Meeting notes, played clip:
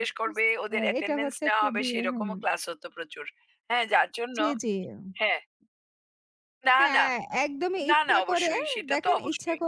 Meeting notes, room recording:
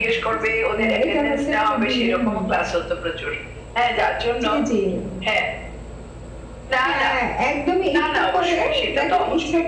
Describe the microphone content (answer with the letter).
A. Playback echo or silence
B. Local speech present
A